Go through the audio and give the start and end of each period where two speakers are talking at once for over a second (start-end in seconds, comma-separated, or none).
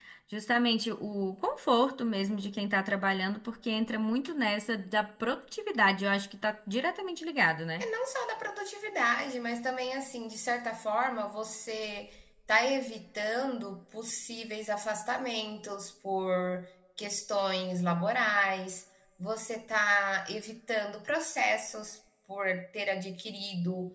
none